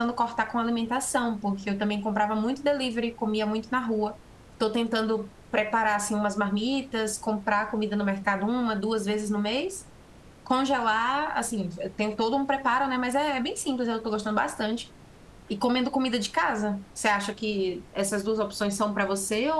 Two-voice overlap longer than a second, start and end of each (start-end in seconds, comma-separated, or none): none